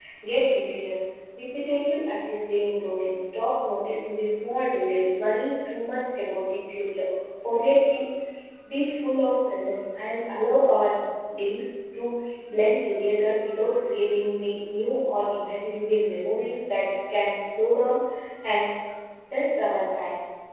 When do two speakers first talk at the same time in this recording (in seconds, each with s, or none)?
none